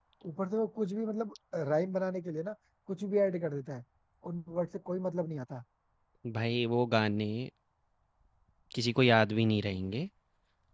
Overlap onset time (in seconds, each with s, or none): none